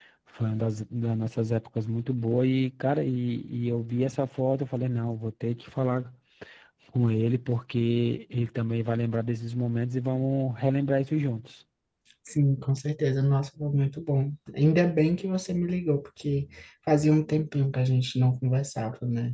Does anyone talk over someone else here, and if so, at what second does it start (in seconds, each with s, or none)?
none